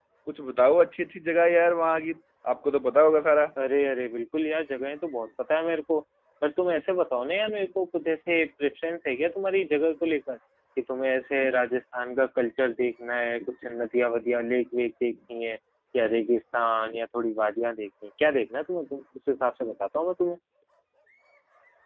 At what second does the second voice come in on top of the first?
none

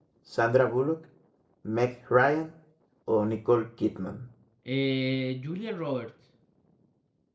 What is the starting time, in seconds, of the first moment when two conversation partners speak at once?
none

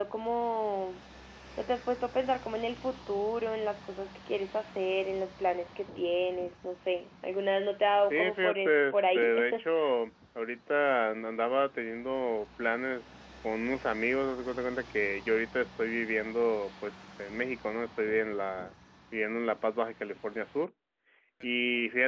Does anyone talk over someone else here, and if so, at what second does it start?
8.1 s

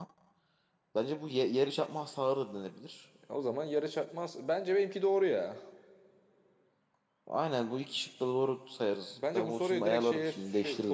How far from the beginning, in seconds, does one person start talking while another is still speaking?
9.2 s

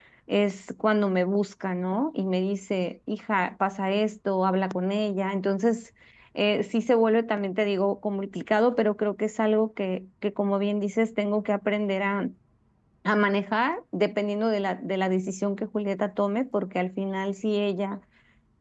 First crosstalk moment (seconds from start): none

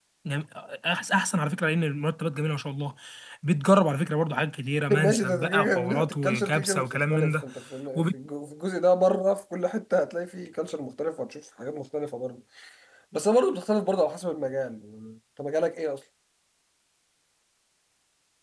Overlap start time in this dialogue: 4.9 s

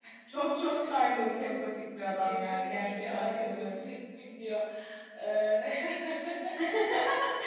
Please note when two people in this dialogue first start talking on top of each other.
2.2 s

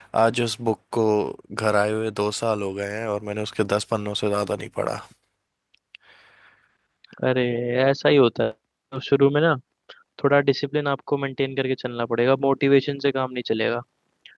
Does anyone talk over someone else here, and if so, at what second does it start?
none

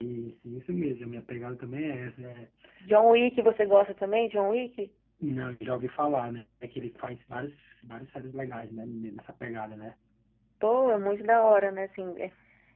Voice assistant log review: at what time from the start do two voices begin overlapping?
none

